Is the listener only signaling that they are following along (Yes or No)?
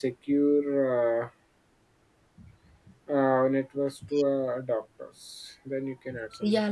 No